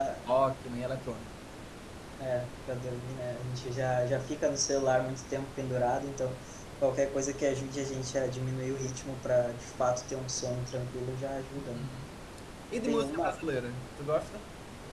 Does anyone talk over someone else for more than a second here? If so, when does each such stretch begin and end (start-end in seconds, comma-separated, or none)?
none